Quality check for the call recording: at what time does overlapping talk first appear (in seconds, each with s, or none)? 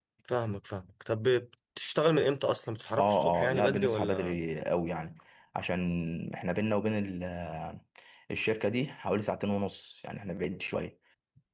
3.0 s